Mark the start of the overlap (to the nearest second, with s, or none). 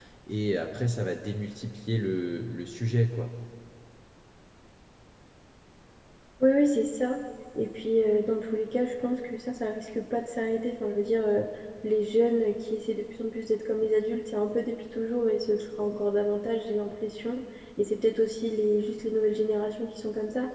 none